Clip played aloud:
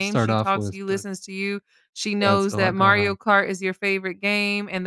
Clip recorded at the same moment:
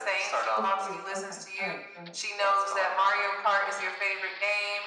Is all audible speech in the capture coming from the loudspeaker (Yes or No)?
No